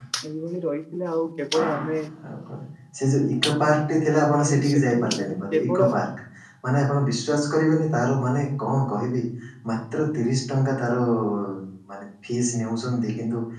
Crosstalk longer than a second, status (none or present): present